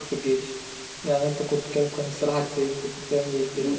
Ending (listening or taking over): taking over